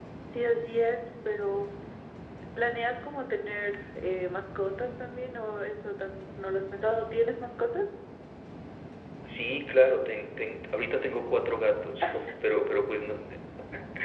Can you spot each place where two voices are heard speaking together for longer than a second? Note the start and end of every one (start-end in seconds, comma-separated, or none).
none